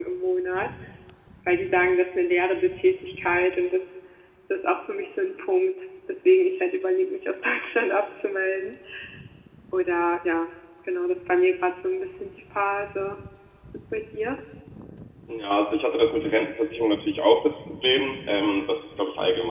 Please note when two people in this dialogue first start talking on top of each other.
none

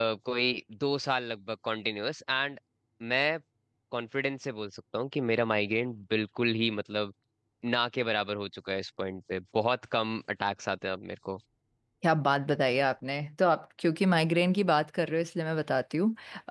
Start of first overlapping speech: none

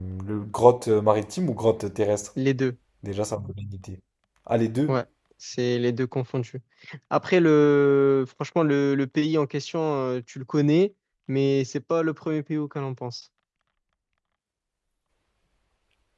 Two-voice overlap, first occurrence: none

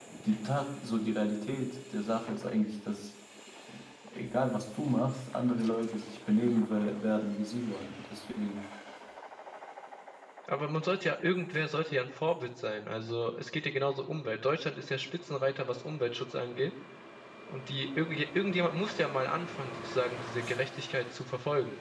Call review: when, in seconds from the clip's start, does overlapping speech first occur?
none

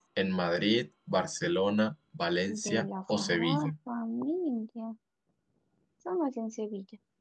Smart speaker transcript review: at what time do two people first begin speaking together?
2.5 s

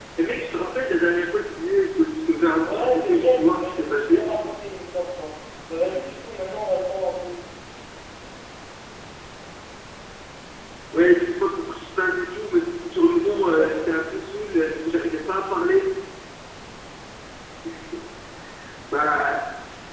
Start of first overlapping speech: 2.7 s

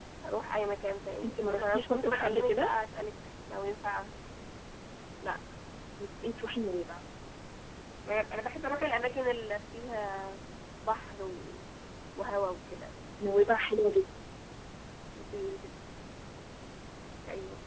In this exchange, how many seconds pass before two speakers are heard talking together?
1.2 s

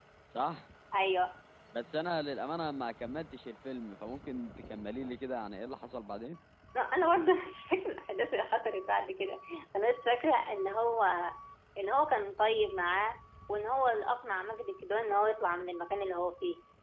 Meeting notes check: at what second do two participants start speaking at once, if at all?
none

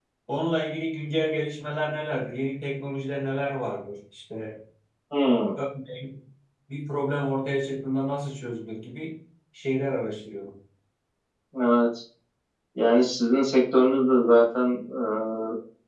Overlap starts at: none

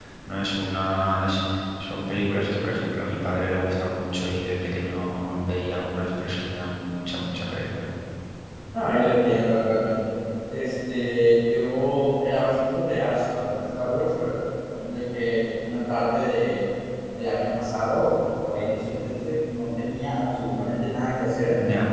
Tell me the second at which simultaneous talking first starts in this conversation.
none

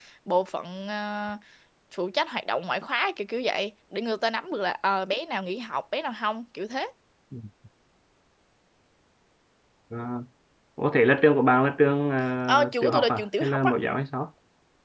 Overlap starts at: 12.5 s

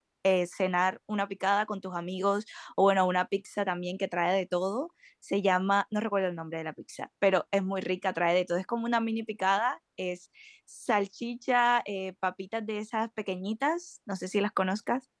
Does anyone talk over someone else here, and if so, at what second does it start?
none

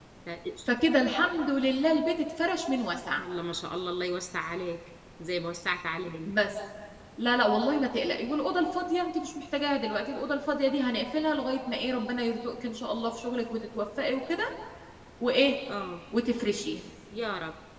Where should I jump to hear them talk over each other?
none

